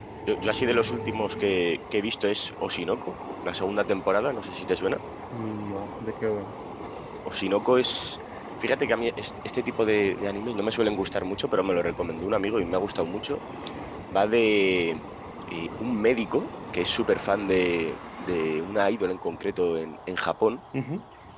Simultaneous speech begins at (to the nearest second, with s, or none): none